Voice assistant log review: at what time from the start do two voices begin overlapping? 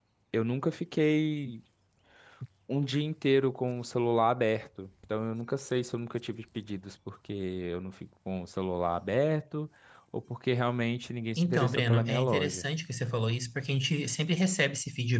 11.4 s

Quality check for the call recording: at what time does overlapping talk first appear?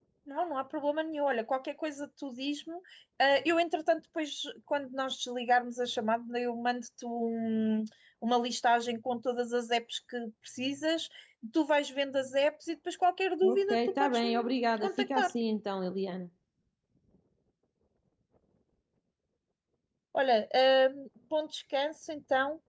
13.4 s

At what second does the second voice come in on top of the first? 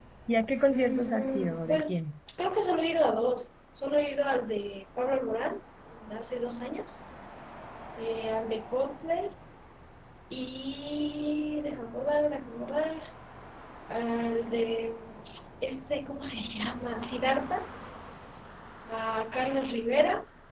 0.7 s

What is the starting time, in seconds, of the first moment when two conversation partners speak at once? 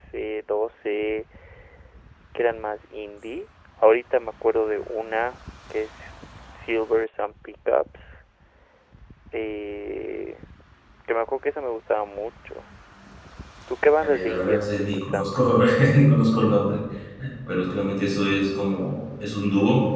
14.0 s

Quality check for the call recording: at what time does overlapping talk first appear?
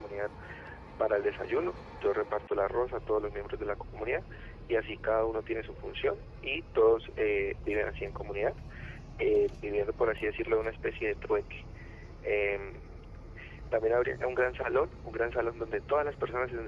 none

